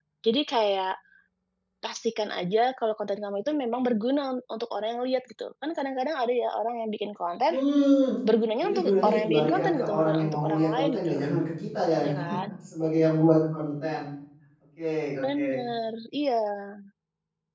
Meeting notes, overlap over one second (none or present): present